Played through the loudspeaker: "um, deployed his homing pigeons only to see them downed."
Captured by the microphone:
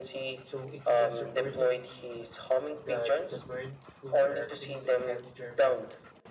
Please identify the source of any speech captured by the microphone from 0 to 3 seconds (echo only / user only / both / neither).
both